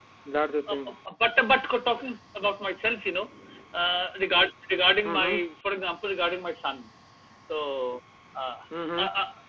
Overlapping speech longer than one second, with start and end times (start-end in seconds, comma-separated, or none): none